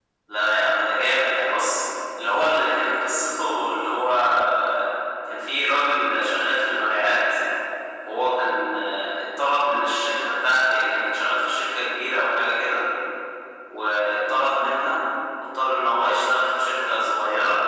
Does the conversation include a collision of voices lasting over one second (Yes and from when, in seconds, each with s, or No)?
No